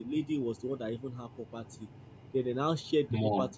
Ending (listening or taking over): listening